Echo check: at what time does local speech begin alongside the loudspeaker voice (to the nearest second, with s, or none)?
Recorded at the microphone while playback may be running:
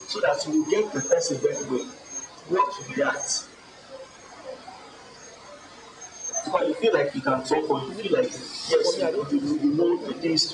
8 s